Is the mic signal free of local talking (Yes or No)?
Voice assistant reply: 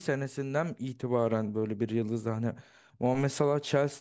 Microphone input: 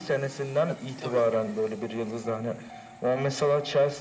No